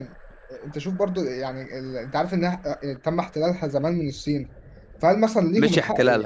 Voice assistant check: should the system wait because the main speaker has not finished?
No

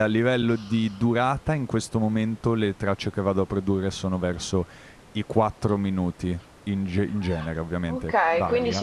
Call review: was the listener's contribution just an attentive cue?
No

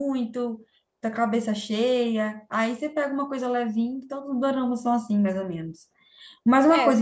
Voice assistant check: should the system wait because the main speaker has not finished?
Yes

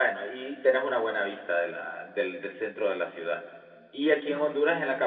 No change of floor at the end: Yes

